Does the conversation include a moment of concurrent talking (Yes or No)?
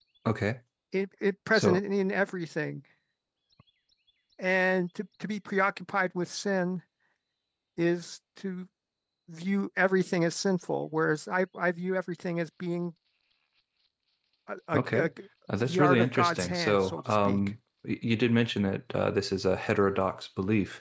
Yes